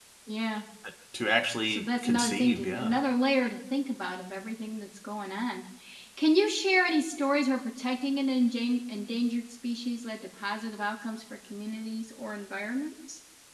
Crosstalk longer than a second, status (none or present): present